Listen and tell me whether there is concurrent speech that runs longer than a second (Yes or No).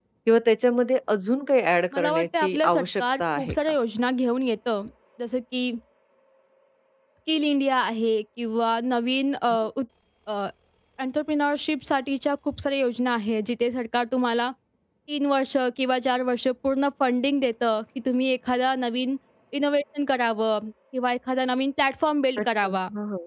Yes